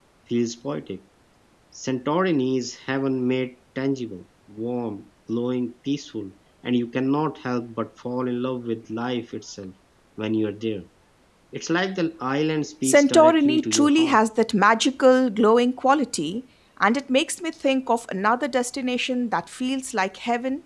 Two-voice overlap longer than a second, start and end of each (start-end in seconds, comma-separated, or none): 12.8-14.2